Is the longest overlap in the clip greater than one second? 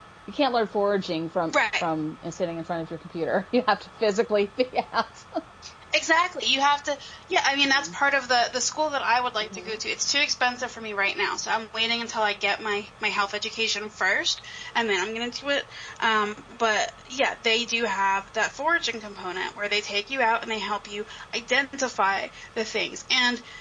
No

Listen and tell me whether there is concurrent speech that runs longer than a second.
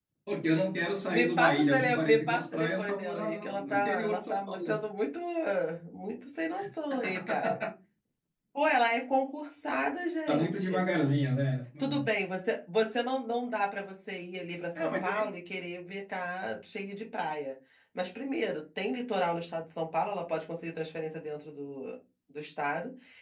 Yes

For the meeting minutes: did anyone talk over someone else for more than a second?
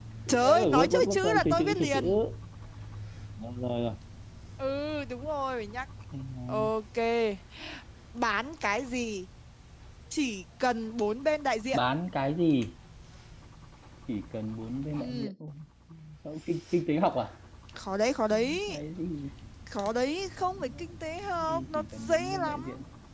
Yes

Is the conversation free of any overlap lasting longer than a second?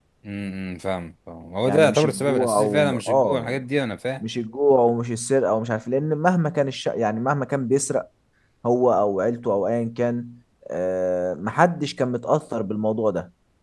No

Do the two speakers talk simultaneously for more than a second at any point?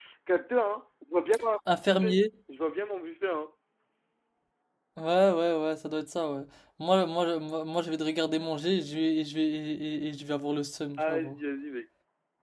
No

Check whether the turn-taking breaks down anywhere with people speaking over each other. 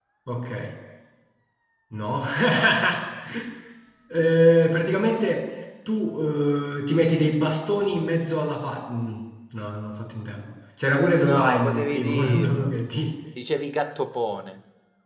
Yes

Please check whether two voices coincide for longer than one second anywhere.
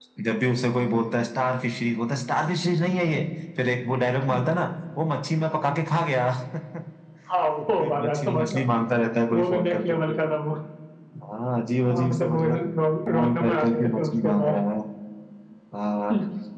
Yes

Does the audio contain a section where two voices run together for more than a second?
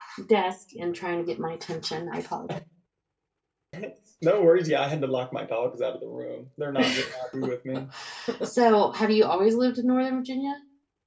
No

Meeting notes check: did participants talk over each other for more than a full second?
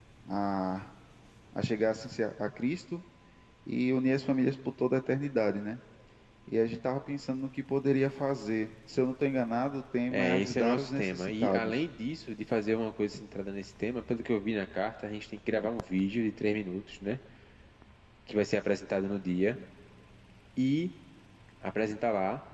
Yes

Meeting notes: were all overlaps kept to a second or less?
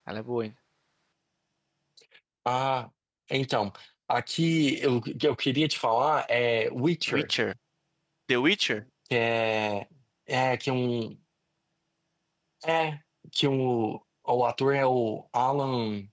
Yes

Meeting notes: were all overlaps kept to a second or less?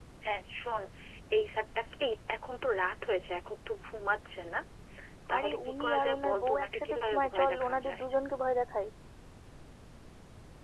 No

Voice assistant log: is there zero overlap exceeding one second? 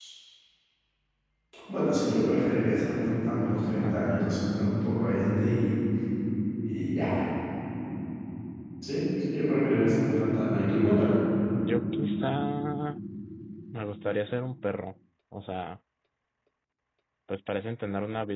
Yes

